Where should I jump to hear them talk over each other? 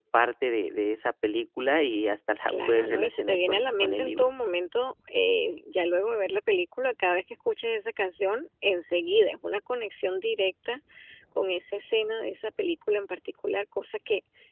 2.5 s

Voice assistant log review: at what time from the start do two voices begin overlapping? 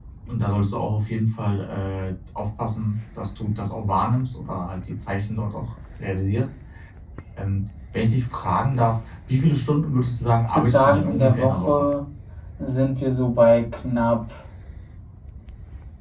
10.6 s

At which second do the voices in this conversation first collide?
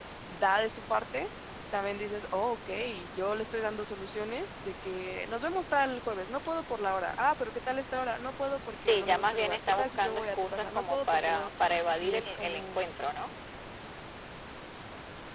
8.8 s

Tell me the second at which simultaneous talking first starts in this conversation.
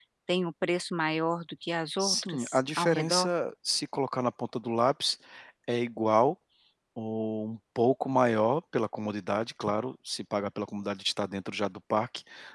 2.0 s

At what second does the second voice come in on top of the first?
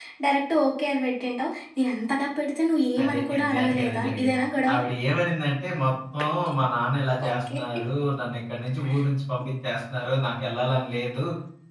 3.0 s

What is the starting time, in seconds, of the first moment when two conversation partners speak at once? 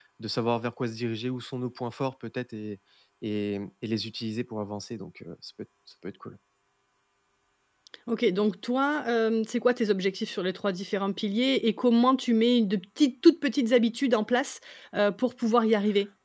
none

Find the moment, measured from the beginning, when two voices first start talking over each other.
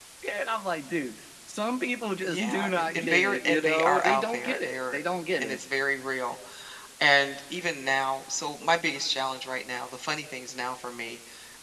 2.2 s

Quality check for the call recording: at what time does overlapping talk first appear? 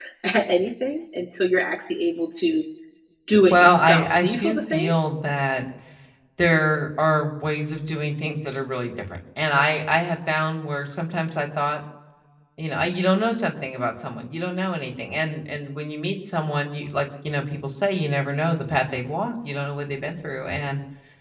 3.5 s

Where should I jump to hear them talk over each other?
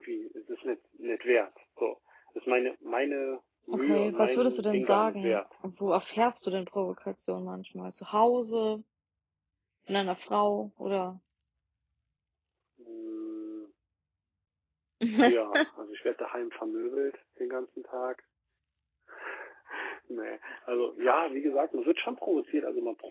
3.7 s

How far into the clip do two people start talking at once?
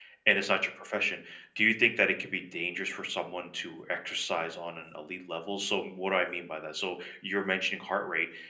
none

